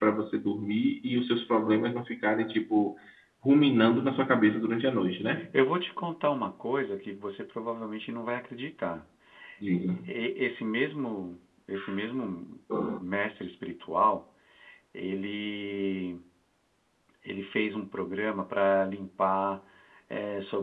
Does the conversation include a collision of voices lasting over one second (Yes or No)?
No